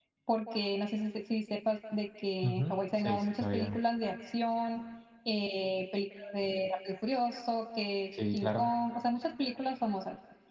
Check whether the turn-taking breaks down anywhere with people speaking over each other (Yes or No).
Yes